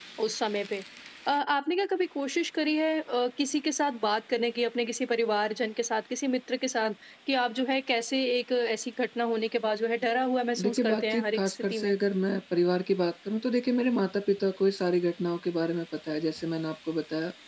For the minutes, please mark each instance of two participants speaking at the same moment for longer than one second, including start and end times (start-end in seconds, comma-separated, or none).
10.6-11.9